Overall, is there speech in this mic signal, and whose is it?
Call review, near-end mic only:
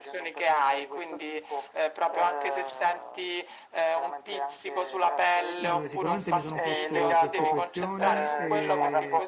both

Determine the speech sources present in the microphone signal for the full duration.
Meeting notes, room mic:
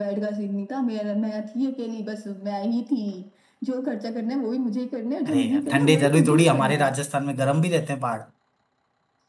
both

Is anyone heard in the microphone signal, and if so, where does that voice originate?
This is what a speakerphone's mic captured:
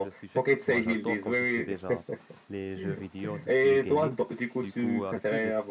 both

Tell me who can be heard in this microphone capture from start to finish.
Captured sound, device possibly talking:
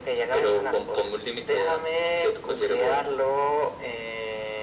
echo only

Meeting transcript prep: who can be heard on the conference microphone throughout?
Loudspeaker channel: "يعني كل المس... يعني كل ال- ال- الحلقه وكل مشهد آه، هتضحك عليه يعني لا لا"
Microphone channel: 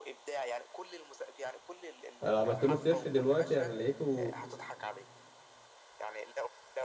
both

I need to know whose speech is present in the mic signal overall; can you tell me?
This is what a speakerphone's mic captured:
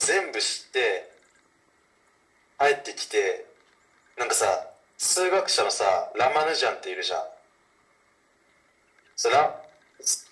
echo only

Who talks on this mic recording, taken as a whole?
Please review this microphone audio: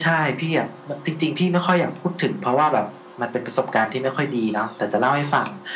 echo only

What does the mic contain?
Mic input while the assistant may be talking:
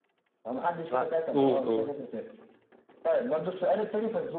both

